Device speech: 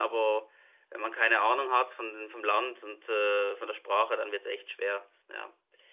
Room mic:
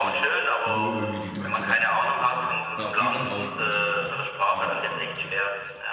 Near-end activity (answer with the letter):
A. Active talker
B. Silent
A